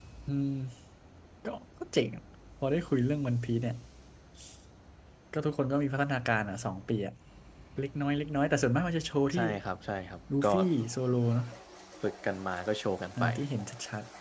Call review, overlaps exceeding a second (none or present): none